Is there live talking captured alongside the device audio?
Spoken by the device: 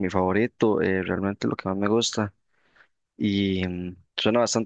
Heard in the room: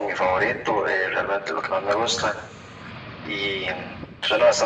No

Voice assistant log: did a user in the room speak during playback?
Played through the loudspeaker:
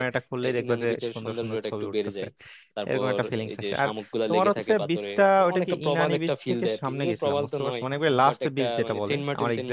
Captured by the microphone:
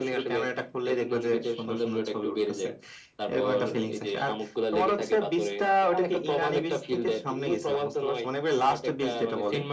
No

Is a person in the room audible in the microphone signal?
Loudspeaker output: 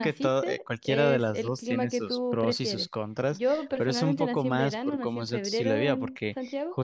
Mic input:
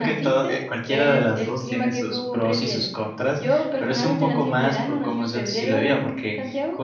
No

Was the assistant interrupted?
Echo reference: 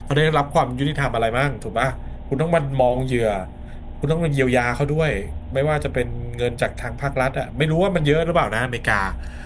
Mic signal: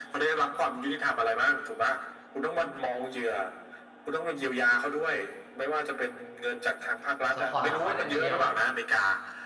Yes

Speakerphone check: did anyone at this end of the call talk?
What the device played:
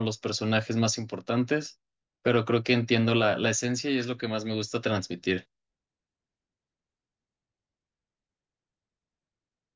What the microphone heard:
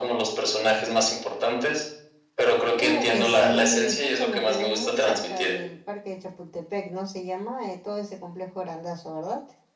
Yes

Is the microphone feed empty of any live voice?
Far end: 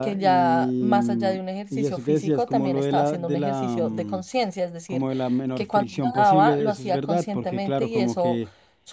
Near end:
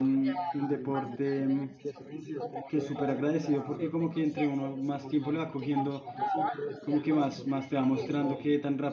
No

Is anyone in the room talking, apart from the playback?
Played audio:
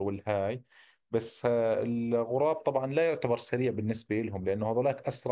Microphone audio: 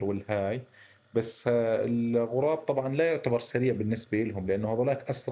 No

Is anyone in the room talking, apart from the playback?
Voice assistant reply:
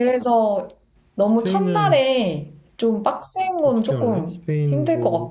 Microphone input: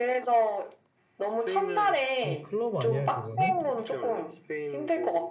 Yes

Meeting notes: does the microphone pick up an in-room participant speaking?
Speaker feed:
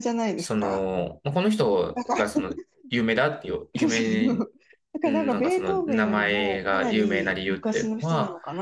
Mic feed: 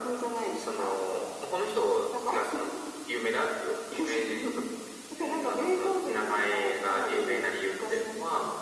No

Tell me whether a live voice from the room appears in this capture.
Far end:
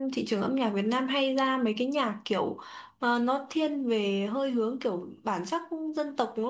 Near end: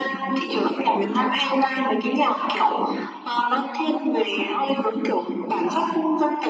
No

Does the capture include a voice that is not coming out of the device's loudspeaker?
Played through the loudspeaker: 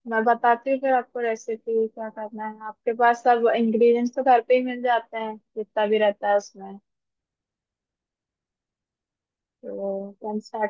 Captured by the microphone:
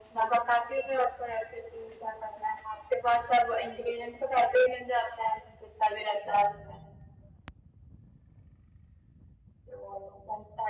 No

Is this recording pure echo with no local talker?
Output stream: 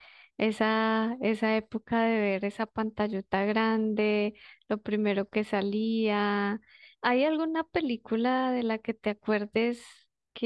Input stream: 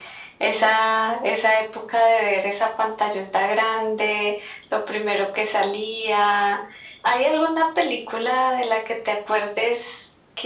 Yes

